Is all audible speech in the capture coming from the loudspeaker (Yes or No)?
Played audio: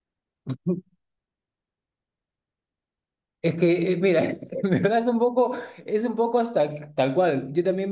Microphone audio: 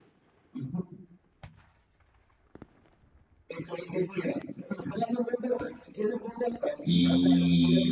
No